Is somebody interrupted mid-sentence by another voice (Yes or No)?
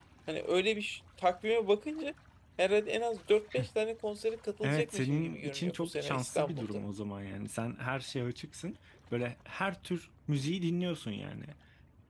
Yes